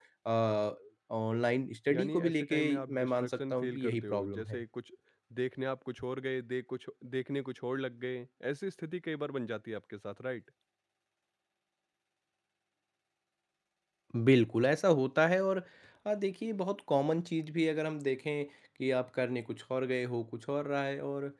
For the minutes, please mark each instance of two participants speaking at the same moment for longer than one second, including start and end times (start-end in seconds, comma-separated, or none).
1.9-4.6